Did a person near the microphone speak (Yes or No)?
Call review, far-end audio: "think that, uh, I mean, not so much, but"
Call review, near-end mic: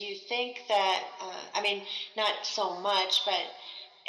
No